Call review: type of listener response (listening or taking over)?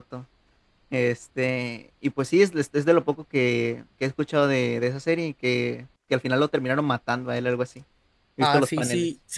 taking over